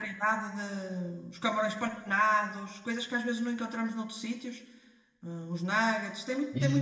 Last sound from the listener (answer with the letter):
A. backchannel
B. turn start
B